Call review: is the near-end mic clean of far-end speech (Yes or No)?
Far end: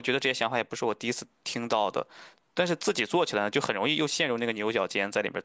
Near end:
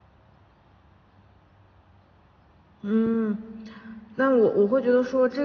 Yes